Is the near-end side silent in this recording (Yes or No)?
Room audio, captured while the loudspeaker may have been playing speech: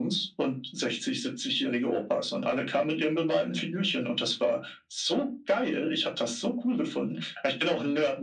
Yes